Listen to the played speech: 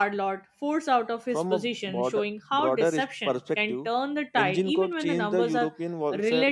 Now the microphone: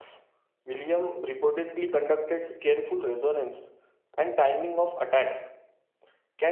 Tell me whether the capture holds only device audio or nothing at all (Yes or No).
No